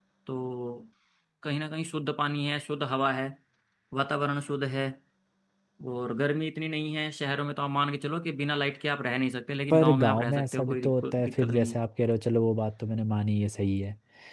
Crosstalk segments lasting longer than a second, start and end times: 9.7-11.8

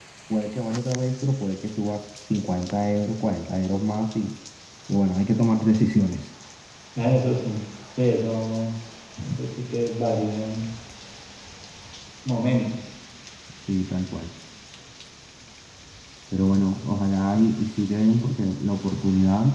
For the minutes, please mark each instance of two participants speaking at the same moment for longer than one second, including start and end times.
none

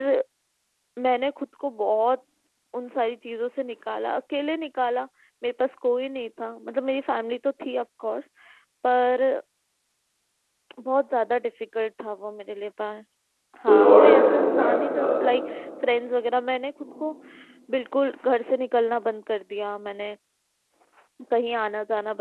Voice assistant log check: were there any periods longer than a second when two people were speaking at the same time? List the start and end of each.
13.7-15.1

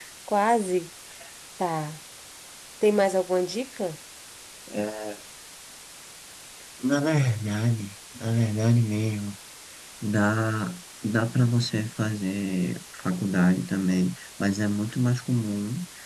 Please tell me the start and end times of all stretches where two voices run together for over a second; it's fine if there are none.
none

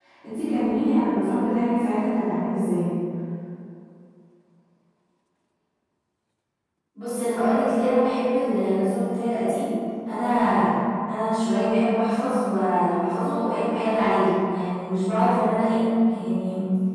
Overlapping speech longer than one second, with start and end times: none

